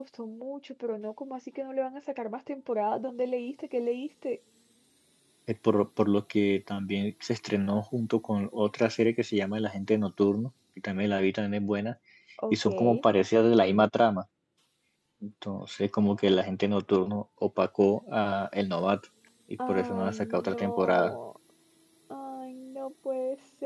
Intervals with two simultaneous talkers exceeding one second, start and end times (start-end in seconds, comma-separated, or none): 19.7-21.2